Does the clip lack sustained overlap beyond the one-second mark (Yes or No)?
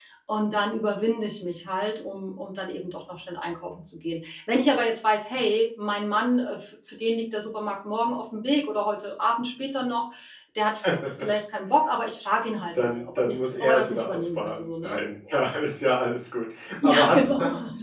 No